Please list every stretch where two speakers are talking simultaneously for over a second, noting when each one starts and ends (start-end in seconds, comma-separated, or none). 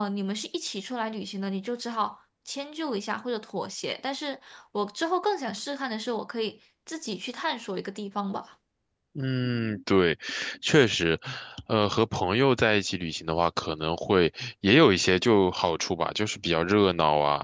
none